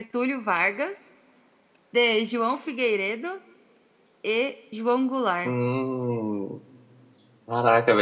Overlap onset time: none

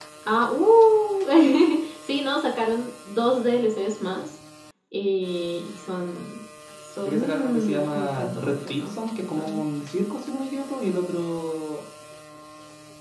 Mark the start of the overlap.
7.0 s

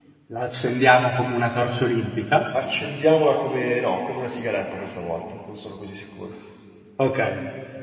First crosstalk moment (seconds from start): none

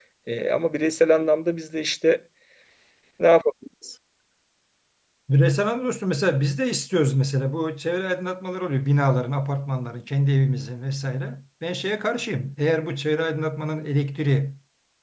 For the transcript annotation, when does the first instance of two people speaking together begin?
none

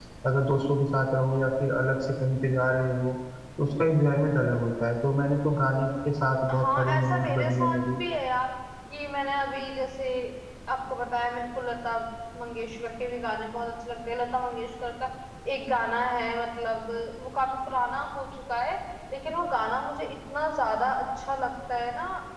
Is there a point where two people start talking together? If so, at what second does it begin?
6.5 s

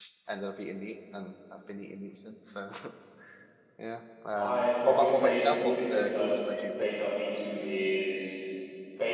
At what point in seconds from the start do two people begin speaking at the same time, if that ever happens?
4.4 s

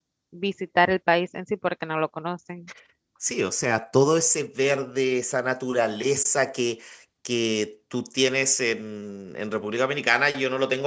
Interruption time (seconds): none

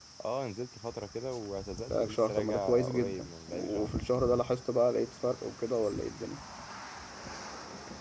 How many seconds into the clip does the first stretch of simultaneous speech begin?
1.9 s

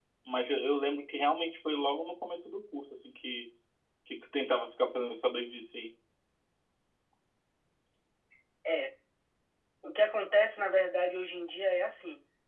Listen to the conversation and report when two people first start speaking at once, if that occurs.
none

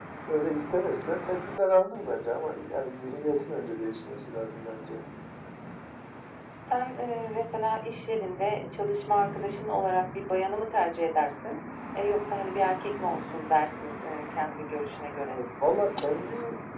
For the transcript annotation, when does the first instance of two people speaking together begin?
none

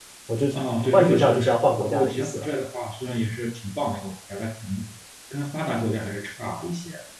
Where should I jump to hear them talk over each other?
0.9 s

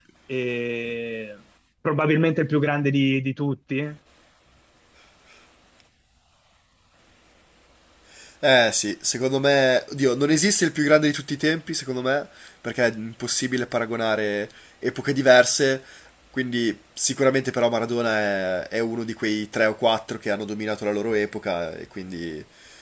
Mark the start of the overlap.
none

